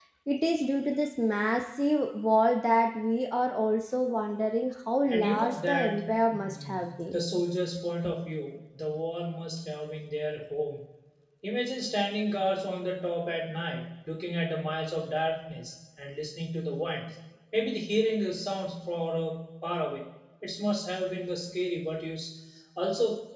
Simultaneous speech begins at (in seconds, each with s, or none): 5.1 s